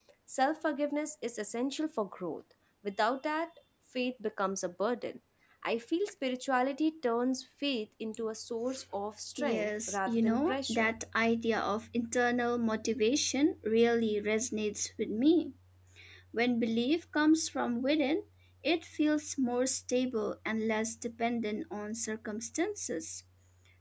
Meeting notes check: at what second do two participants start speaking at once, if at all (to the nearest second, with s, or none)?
9 s